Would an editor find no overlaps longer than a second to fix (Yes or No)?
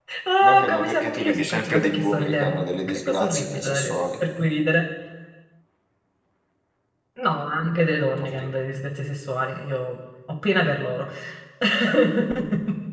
No